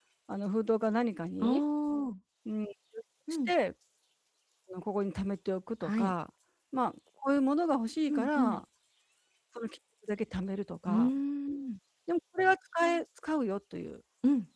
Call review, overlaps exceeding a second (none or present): none